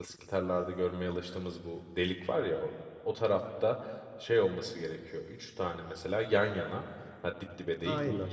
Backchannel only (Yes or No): Yes